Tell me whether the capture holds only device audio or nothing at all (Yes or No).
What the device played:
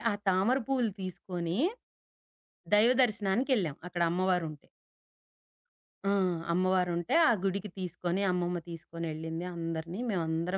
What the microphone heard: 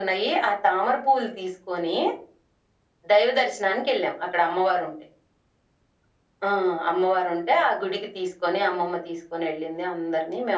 Yes